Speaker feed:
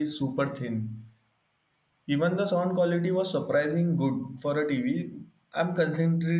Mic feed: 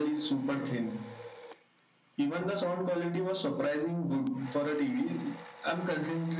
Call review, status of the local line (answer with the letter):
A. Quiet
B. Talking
A